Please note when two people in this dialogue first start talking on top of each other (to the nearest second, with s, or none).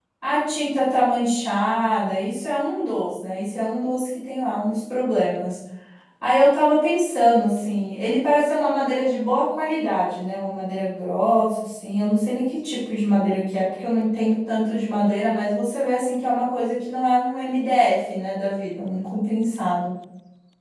none